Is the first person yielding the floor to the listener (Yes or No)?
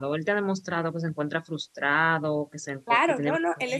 Yes